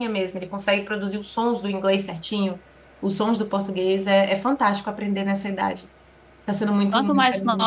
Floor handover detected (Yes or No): Yes